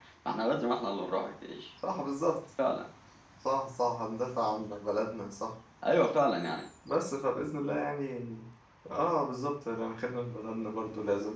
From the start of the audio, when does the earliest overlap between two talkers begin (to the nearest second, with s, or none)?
none